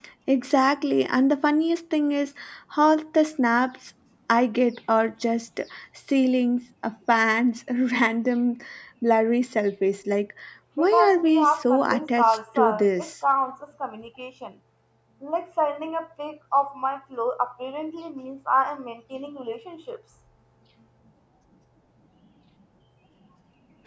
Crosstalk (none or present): present